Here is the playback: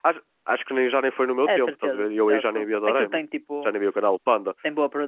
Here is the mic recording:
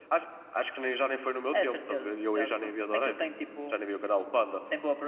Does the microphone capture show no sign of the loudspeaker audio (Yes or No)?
No